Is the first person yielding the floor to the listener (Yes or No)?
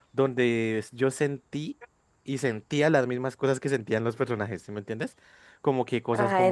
No